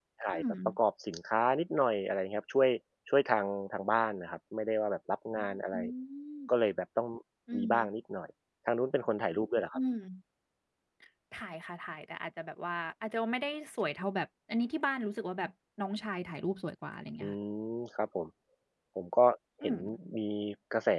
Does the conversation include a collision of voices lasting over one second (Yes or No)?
No